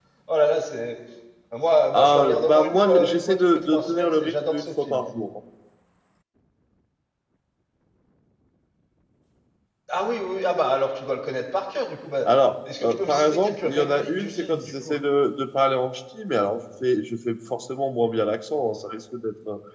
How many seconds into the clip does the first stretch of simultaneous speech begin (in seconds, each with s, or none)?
1.9 s